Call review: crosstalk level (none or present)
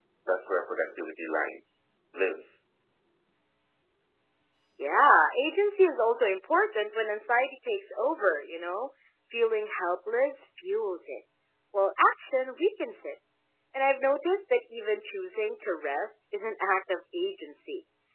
none